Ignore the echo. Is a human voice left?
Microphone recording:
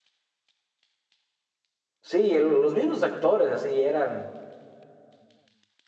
Yes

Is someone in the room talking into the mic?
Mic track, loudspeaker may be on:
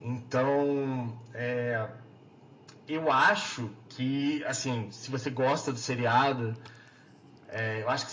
No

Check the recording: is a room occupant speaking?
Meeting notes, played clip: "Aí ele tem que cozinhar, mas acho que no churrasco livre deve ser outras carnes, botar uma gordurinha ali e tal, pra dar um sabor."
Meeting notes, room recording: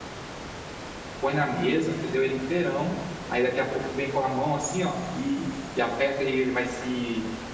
Yes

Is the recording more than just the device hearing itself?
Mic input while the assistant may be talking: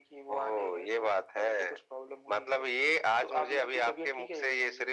No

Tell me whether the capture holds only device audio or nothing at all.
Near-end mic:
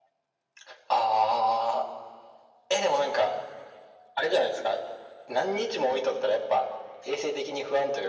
Yes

